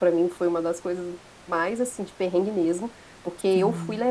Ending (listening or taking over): listening